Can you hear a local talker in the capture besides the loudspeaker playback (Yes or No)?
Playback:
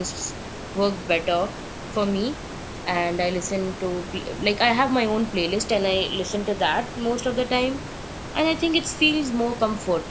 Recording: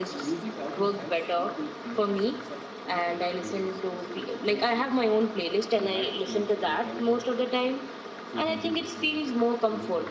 Yes